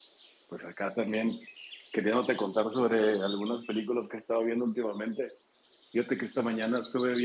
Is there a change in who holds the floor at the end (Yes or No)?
No